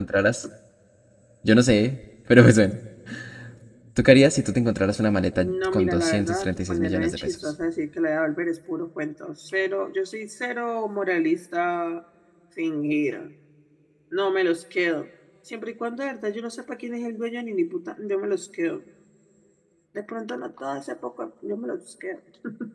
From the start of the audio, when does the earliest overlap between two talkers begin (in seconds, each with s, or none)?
5.4 s